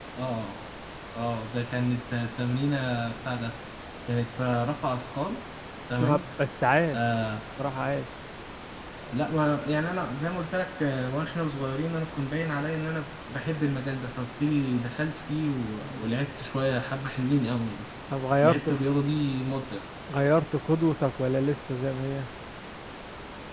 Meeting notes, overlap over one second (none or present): none